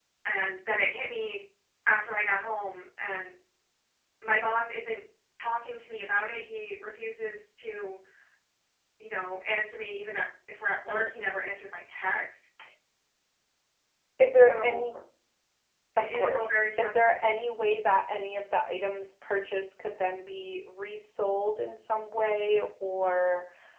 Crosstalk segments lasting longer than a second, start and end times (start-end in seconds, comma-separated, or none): 16.0-17.3